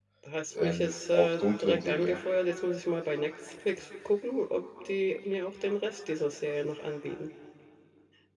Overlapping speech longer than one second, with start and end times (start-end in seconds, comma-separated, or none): 0.6-2.2